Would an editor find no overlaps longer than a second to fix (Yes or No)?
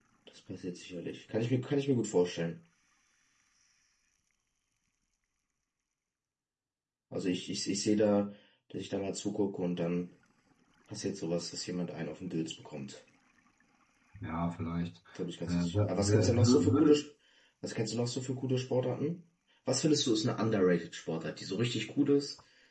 No